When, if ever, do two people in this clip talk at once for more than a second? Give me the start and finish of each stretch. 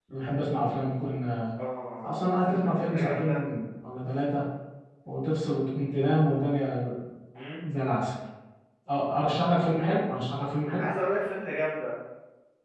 2.0-3.4

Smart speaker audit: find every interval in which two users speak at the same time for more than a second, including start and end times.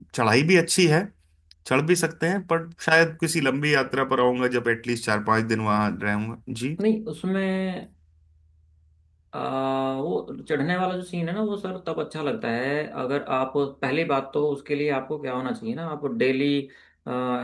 none

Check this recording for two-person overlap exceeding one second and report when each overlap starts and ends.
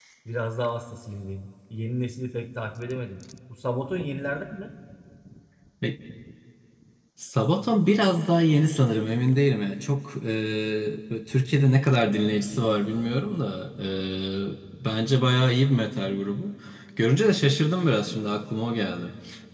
none

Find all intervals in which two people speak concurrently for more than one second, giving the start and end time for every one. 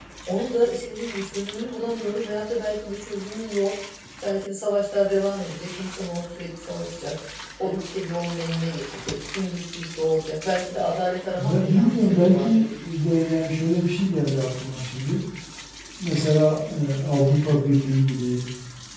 11.4-12.7

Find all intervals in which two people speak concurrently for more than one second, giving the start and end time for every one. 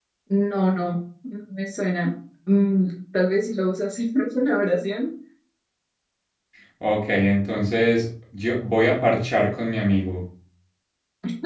none

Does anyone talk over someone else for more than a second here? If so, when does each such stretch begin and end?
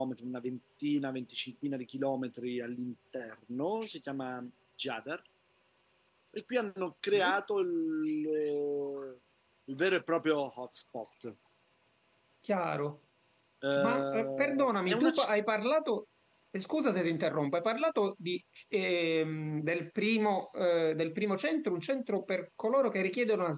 13.8-15.1

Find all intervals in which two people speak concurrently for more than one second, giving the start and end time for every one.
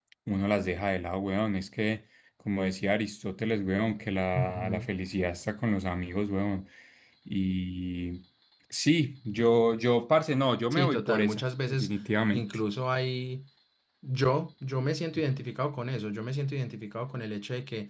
10.7-11.9

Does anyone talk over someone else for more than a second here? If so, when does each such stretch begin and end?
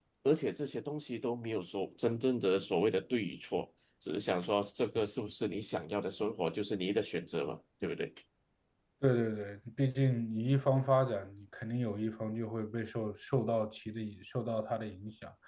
none

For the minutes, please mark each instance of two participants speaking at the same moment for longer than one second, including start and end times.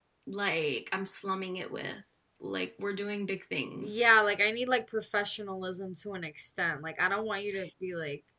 none

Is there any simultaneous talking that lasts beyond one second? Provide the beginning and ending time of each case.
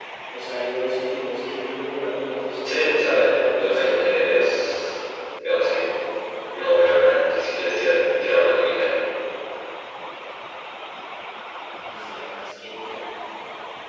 2.6-4.0

